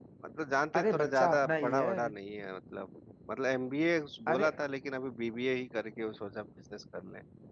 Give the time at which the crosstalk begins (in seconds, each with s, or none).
0.7 s